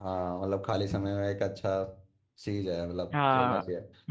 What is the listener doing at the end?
taking over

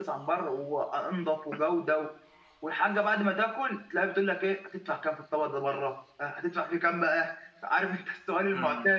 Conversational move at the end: taking over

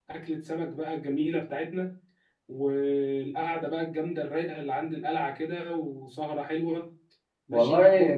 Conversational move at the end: taking over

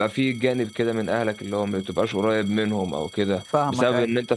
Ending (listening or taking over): listening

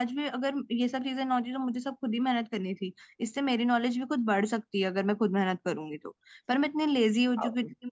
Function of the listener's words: listening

